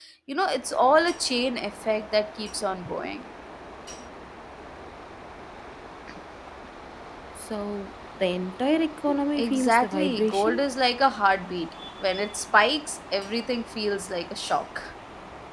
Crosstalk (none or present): present